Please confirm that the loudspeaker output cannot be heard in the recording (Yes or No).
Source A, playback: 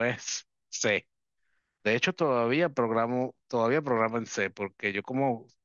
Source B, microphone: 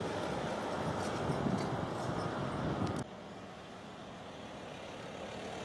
Yes